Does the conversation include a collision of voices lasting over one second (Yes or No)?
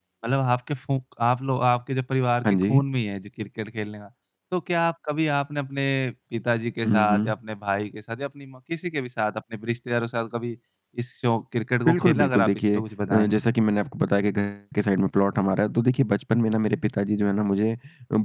Yes